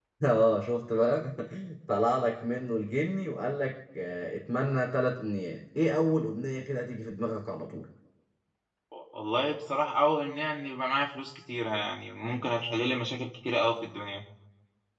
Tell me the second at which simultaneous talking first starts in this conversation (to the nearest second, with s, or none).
none